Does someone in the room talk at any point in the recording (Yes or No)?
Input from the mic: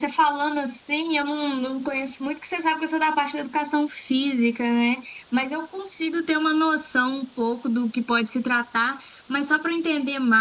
No